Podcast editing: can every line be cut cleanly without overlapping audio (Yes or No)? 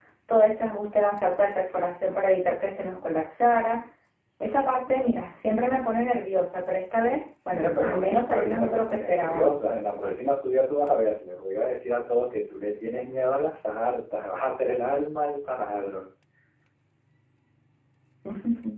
No